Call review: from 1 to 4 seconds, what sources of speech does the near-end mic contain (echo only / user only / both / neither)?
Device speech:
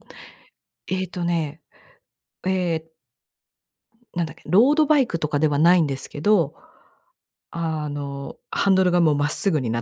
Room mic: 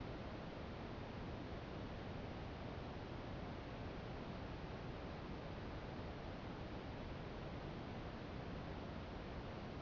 neither